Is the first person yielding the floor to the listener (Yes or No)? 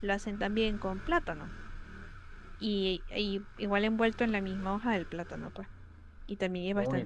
Yes